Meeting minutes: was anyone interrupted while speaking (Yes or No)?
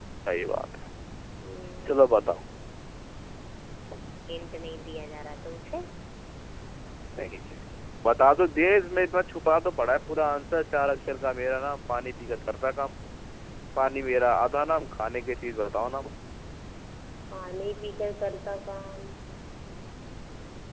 No